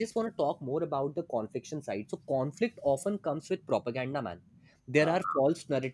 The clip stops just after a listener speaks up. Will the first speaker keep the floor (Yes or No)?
Yes